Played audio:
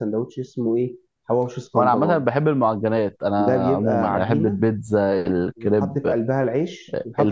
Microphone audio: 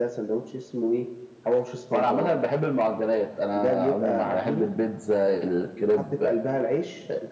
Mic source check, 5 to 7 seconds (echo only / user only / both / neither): echo only